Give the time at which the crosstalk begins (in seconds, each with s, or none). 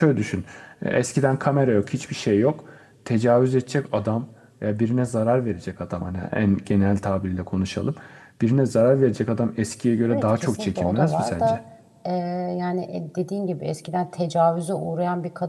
10.0 s